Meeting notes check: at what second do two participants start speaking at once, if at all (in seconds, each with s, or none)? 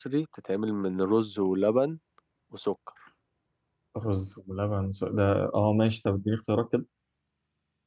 none